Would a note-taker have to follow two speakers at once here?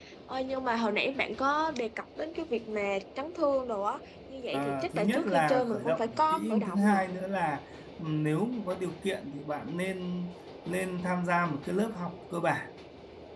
Yes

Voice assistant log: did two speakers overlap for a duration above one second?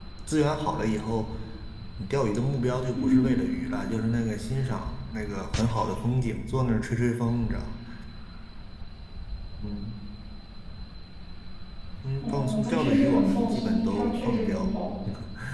Yes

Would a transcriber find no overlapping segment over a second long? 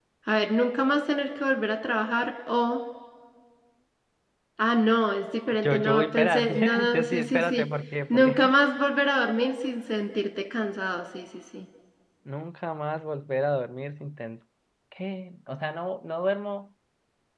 No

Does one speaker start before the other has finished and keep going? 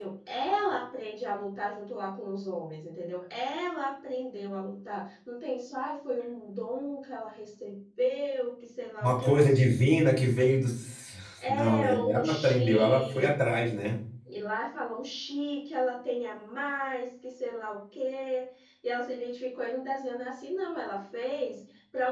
Yes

